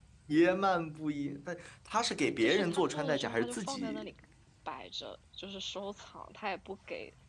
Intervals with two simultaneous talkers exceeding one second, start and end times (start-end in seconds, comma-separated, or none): 2.4-4.1